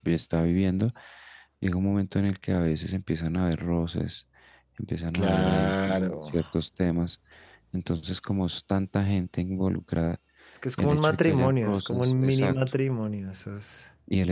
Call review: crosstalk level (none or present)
present